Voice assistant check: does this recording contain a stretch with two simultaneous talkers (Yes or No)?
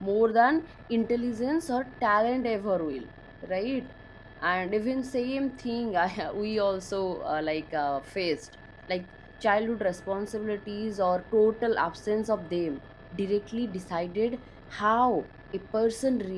No